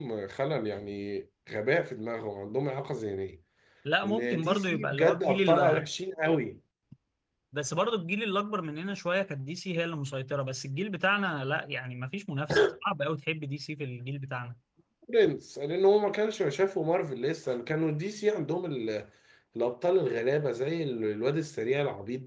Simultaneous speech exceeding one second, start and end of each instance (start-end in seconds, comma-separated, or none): 4.0-5.8